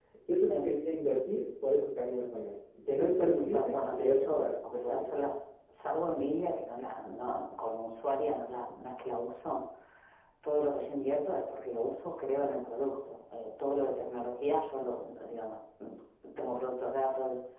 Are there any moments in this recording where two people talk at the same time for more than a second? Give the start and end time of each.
2.9-5.0

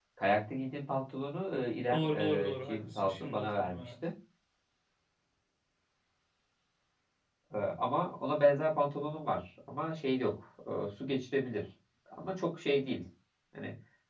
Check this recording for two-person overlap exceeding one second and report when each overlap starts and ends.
1.9-3.9

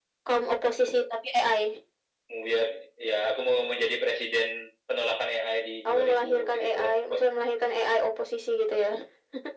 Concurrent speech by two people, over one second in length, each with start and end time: 5.8-7.3

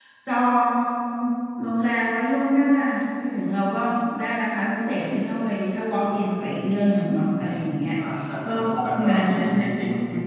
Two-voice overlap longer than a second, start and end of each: 8.4-9.7

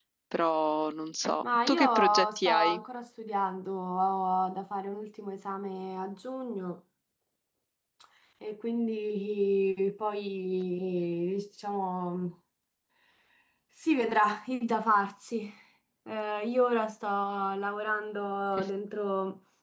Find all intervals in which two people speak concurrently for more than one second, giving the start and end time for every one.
1.4-2.8

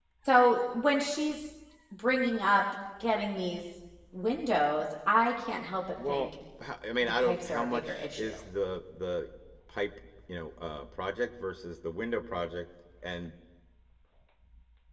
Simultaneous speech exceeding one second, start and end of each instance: 7.0-8.3

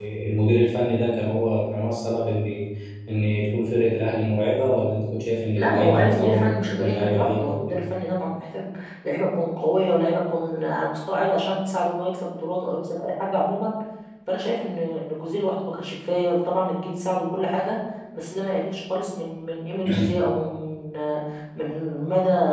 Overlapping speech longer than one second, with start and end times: 5.5-7.8

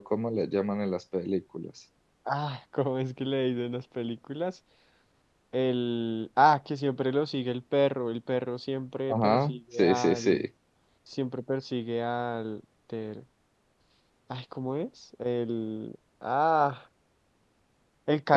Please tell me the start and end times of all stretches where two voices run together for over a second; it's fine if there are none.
9.1-10.5

